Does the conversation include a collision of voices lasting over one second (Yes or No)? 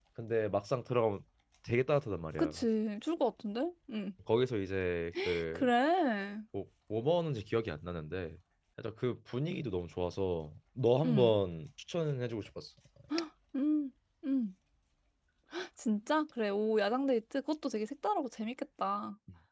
No